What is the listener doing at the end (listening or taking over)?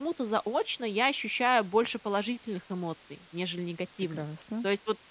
listening